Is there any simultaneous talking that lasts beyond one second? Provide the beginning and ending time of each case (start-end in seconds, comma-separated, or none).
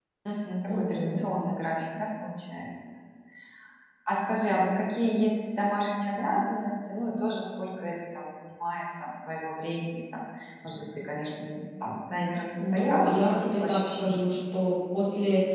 12.6-14.3